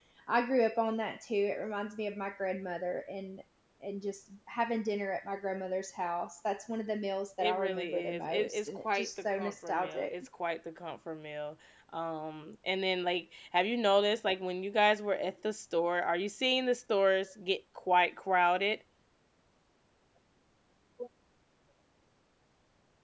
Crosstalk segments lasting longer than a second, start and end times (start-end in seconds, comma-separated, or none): 7.4-10.1